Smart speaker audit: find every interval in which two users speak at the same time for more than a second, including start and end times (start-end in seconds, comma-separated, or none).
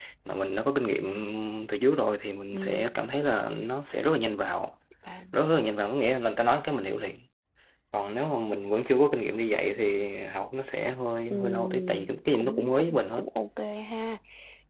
11.3-13.2